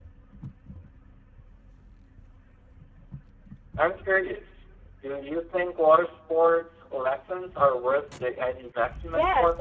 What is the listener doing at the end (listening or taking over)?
taking over